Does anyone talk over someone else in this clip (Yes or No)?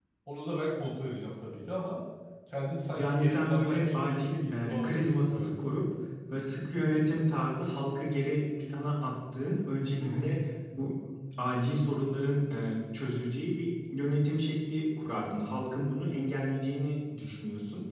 Yes